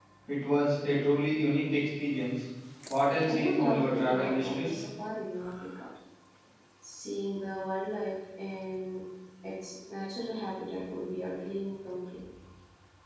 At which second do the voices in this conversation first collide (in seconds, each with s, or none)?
3.2 s